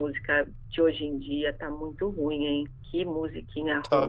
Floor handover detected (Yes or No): No